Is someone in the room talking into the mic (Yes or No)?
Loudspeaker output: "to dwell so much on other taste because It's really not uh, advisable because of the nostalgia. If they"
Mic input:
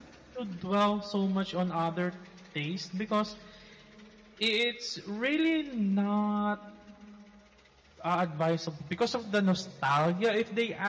No